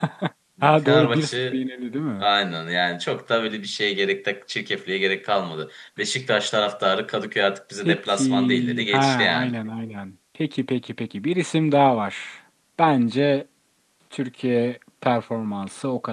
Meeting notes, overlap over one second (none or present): present